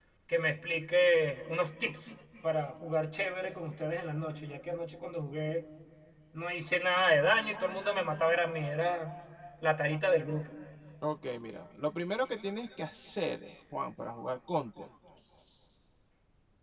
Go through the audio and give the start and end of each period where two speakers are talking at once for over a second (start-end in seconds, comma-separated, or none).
none